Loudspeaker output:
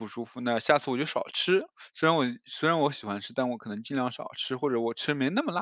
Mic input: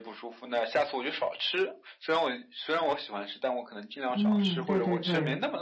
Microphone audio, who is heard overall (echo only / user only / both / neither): both